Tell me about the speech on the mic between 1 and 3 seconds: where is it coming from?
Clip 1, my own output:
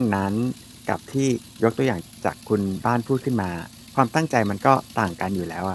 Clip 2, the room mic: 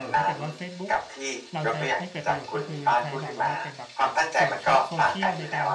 both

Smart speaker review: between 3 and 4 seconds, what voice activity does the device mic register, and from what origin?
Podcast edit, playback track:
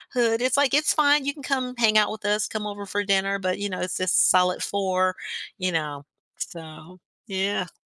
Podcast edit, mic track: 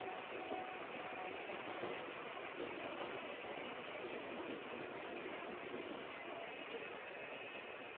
neither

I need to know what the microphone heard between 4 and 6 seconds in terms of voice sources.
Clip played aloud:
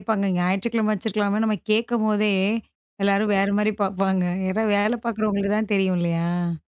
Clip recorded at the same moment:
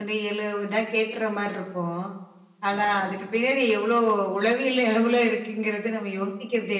user only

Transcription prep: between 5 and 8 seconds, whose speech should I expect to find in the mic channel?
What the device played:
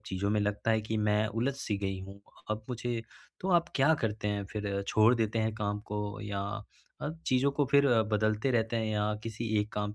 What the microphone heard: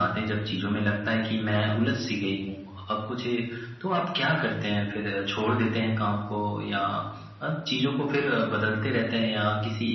echo only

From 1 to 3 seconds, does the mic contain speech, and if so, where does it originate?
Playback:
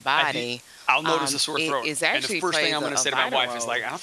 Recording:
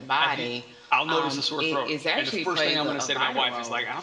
echo only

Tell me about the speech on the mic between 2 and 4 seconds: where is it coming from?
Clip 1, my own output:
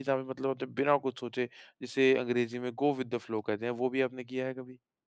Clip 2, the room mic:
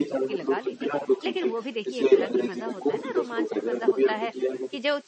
both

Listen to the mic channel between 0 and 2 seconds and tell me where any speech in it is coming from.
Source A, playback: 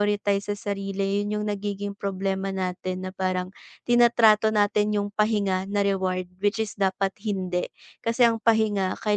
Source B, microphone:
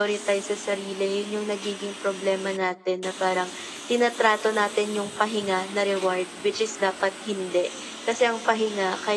echo only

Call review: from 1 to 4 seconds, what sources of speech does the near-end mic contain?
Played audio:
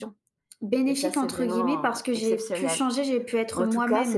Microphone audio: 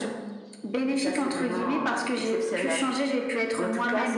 echo only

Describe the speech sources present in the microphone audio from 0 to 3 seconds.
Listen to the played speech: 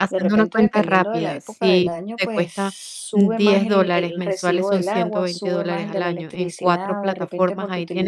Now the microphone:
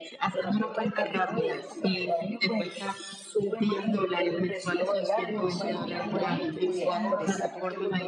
echo only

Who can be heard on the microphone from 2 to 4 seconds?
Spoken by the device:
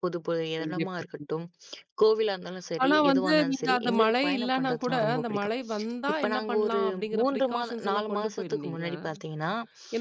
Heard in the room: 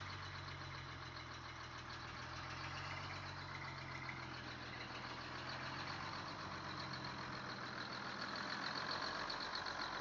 neither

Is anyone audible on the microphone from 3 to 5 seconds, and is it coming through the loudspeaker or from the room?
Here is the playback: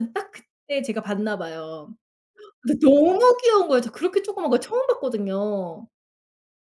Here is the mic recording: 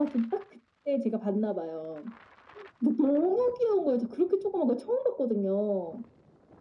echo only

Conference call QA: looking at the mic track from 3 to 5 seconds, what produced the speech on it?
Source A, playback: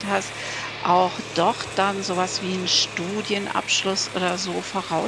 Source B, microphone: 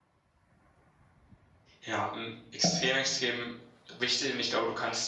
user only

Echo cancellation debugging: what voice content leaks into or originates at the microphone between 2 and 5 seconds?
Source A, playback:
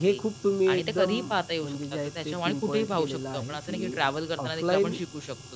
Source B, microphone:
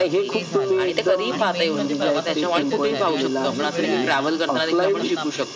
both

